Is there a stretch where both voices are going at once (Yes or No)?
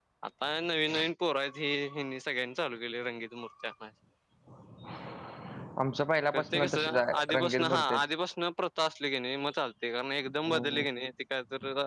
Yes